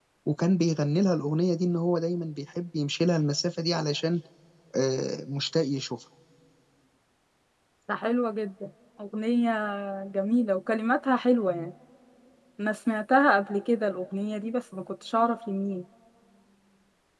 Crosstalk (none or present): none